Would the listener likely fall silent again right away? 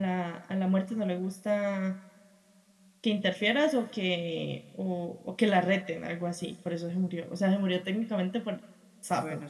No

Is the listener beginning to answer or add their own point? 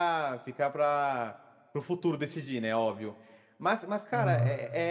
No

